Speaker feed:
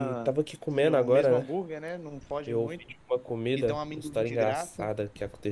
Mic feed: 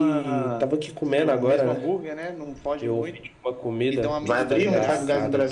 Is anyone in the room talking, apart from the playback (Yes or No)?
Yes